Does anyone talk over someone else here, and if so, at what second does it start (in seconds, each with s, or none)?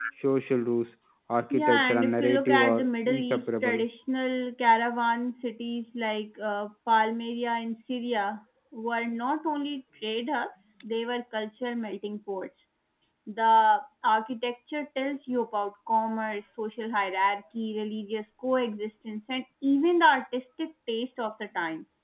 1.5 s